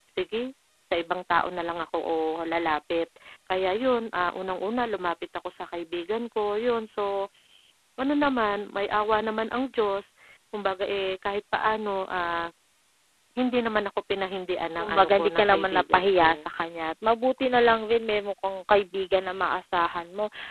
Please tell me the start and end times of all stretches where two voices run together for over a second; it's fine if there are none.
14.8-16.3

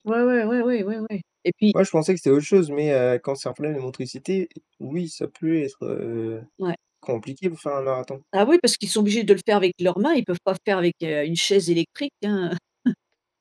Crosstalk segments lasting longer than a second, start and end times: none

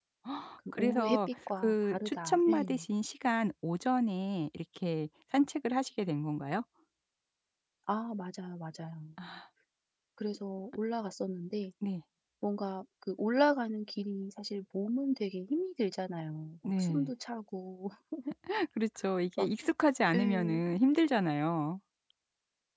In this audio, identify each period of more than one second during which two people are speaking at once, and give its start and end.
0.7-2.7

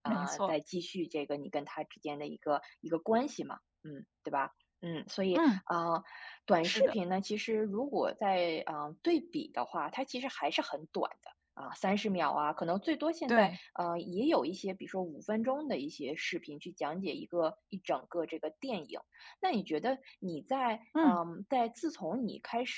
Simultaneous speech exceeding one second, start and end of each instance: none

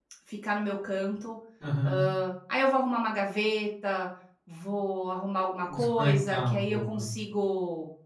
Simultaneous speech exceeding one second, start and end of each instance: 5.7-7.0

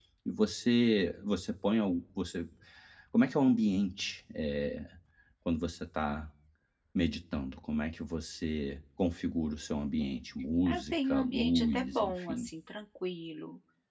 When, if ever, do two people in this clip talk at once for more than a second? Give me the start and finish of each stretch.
10.7-12.5

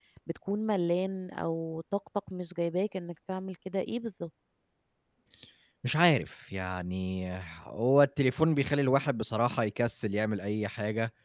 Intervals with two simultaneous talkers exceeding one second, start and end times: none

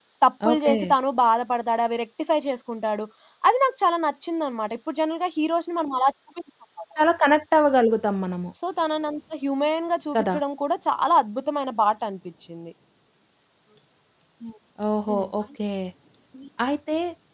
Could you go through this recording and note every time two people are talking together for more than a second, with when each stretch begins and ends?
none

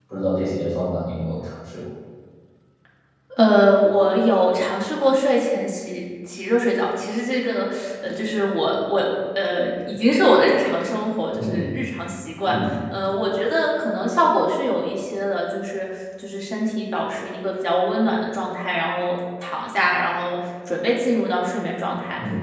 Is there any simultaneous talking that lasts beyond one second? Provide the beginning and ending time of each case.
none

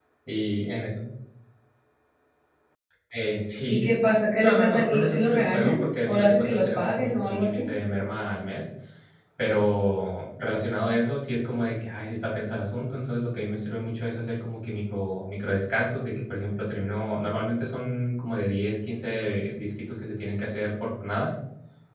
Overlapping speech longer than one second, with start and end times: 4.4-7.6

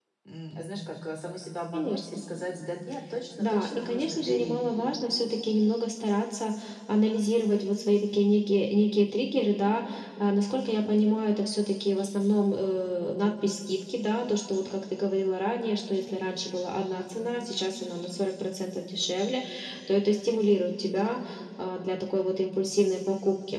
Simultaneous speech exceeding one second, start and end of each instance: 3.4-4.6

